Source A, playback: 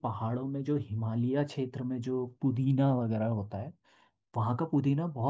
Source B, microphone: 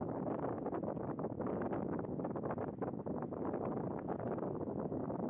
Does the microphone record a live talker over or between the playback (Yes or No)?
No